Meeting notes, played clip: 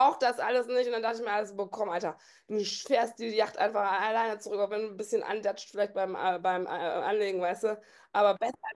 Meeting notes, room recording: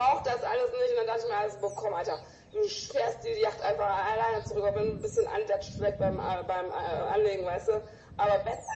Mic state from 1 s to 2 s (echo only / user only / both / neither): echo only